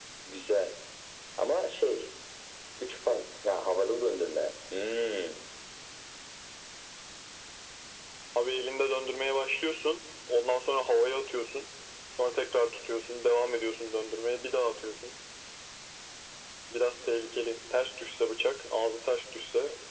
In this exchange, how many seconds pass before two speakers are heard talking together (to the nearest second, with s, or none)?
none